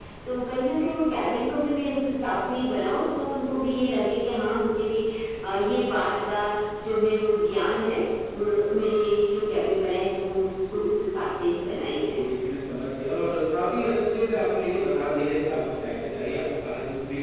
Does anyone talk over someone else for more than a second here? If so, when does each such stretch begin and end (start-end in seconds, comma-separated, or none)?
none